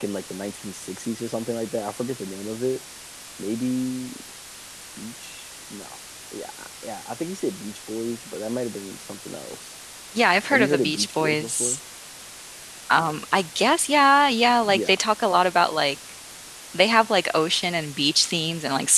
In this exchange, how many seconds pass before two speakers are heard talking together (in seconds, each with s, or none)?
10.5 s